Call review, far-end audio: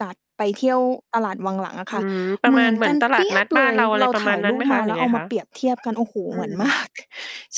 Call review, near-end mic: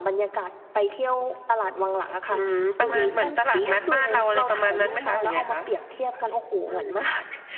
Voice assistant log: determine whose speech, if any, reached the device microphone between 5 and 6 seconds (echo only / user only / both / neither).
echo only